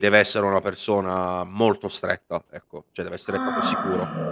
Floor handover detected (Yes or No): Yes